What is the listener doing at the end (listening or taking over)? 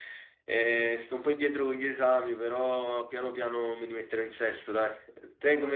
listening